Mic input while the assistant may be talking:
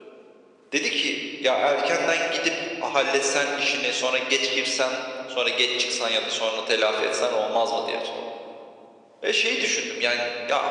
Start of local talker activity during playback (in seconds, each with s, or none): none